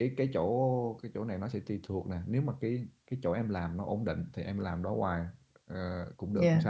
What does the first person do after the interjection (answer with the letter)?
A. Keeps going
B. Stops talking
A